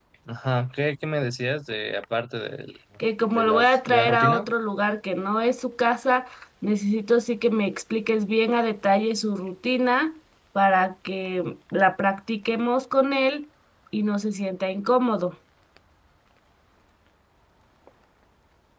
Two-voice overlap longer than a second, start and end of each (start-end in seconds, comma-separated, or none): 3.2-4.5